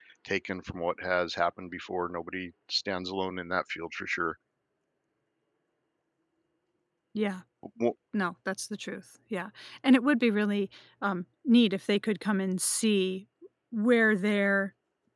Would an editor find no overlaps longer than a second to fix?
Yes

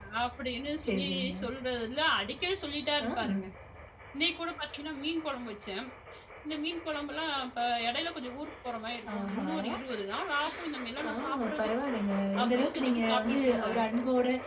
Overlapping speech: Yes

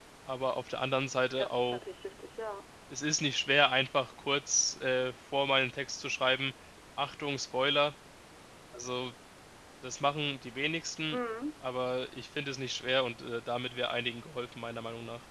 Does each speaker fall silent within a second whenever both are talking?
Yes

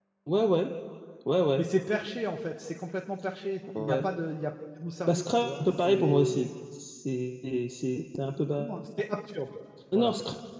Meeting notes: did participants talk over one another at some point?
Yes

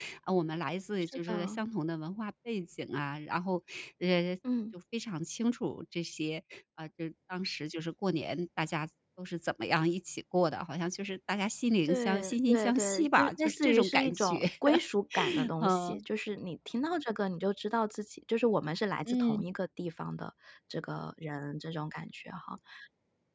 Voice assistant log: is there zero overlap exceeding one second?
No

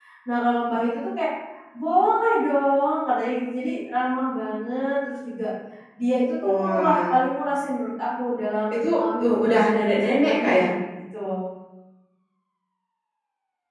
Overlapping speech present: Yes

